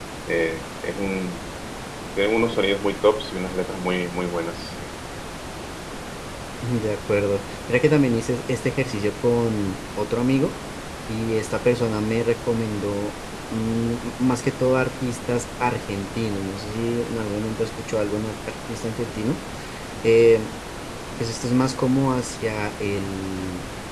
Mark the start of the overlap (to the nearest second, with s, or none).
none